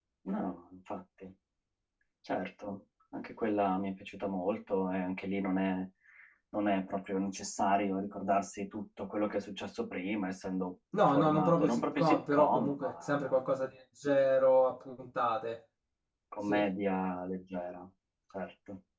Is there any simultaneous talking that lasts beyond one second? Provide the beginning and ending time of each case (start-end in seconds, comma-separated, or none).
11.1-13.2